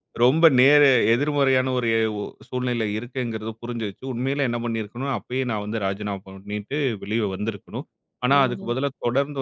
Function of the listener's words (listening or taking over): listening